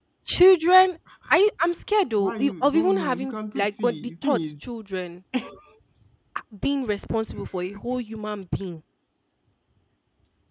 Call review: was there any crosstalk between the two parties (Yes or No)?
Yes